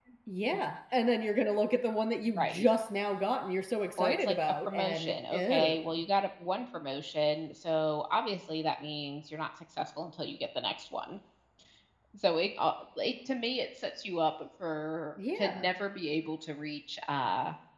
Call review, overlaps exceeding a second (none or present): present